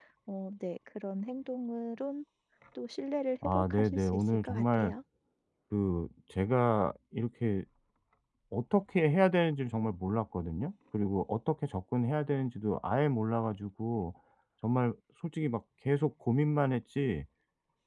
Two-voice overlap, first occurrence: 3 s

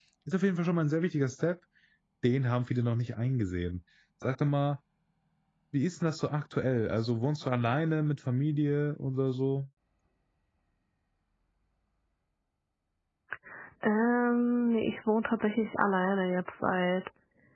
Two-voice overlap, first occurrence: none

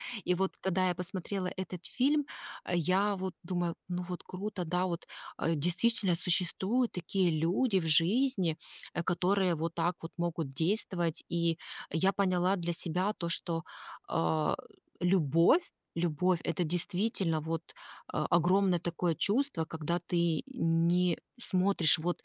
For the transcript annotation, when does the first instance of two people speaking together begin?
none

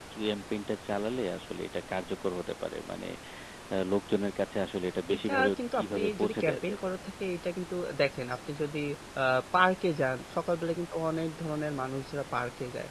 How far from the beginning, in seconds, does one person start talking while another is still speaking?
5 s

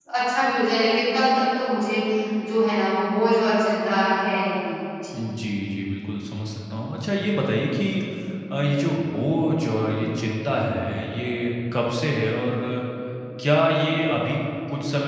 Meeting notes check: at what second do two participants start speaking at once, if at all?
none

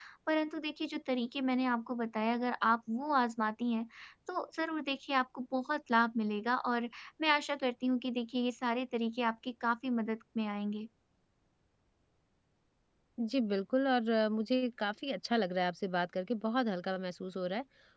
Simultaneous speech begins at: none

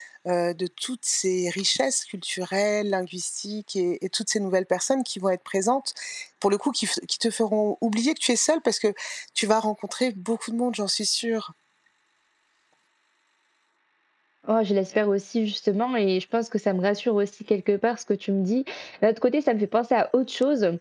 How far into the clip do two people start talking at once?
none

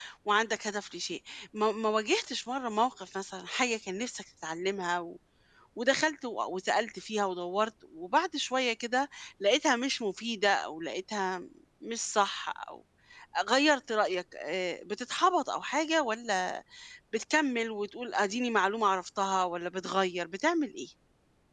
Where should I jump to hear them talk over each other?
none

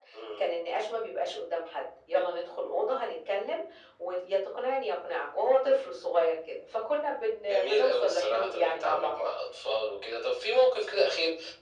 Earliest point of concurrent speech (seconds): 7 s

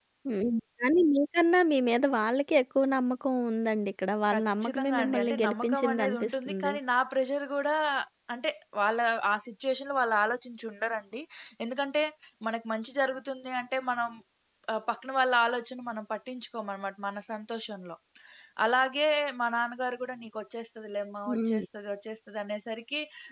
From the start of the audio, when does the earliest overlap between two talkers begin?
4 s

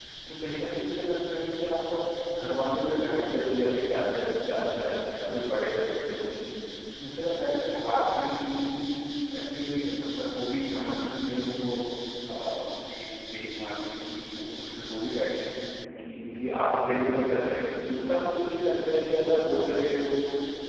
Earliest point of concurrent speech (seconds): none

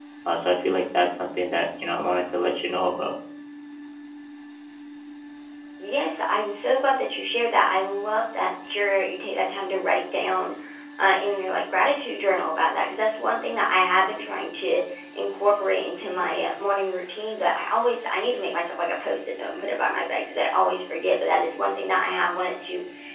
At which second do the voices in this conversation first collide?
none

